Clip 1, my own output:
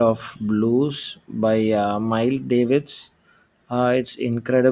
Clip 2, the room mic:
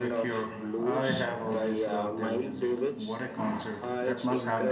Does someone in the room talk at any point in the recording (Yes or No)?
Yes